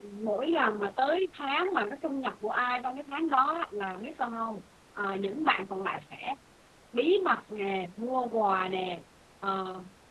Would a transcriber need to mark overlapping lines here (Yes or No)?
No